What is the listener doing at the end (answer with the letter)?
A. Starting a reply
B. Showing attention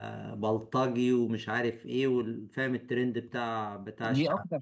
A